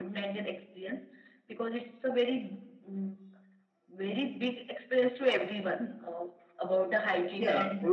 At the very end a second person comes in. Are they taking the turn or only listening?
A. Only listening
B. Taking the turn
B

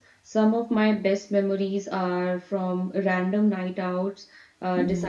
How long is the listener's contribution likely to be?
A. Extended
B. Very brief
B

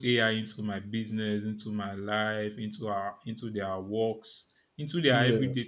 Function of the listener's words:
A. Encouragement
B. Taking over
A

